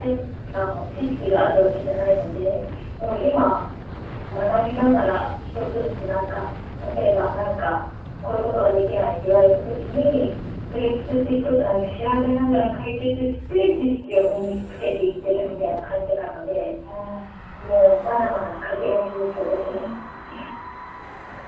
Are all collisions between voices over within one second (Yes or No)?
Yes